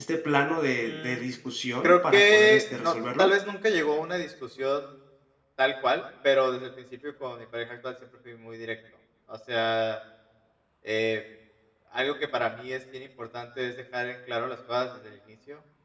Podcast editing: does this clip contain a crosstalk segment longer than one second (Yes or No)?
Yes